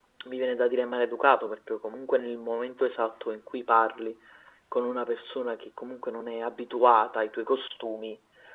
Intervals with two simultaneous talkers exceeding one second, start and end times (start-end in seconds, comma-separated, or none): none